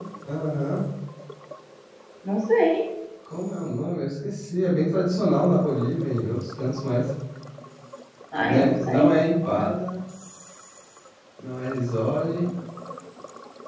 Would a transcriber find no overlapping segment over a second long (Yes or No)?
No